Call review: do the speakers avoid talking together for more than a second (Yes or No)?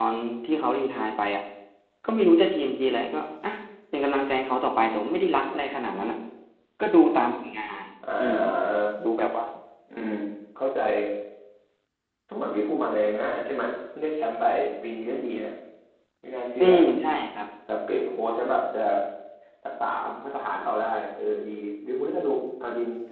Yes